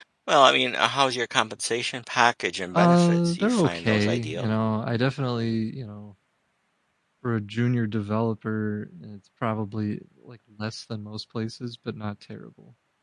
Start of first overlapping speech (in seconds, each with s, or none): 2.7 s